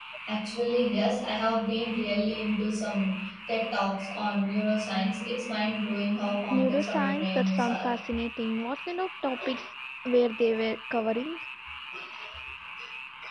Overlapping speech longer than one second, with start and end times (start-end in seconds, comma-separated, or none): 6.5-7.9